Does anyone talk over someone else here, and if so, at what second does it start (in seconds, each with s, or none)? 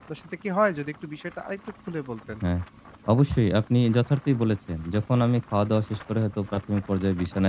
none